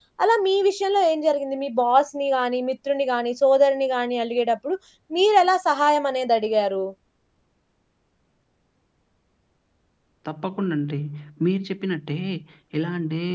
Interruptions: none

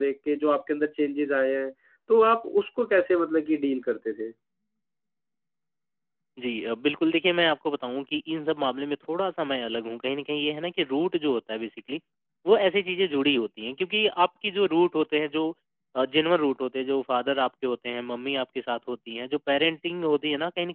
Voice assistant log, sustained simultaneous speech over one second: none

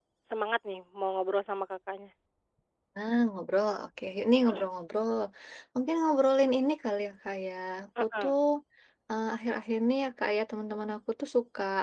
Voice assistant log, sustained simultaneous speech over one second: none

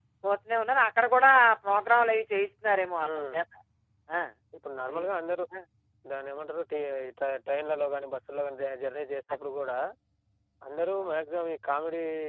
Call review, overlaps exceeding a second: none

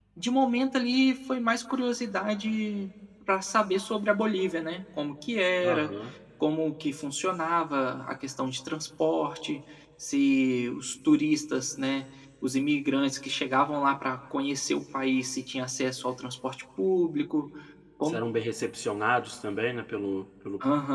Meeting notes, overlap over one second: none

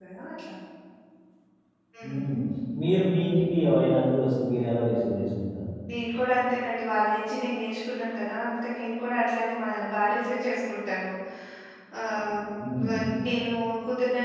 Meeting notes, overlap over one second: none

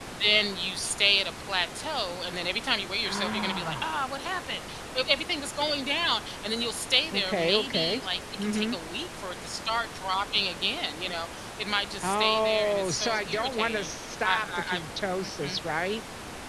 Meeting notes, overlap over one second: present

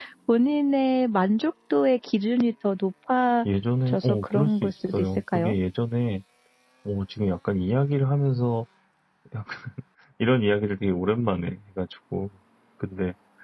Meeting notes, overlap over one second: present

